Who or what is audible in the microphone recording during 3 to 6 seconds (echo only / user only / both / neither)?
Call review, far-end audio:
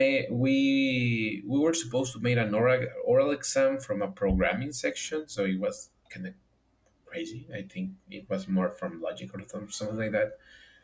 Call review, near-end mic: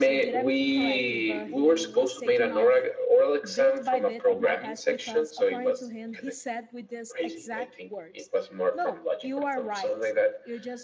both